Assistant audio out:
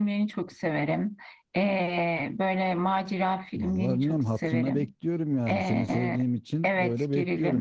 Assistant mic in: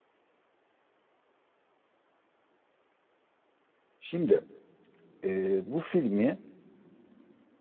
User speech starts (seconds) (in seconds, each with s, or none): 4.0 s